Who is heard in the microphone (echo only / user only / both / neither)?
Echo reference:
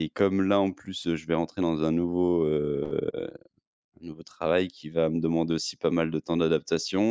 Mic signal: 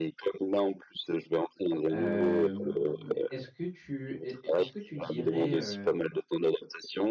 both